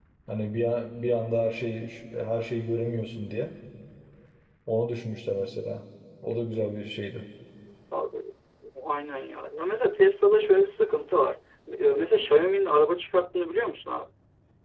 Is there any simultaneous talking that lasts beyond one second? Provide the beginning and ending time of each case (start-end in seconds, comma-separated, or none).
none